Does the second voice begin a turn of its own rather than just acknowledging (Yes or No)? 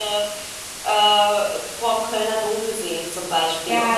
Yes